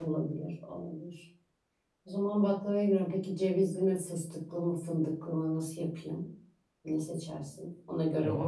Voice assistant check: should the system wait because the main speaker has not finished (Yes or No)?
No